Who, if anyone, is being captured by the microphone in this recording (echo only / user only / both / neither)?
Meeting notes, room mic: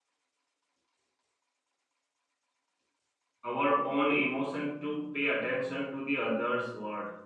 user only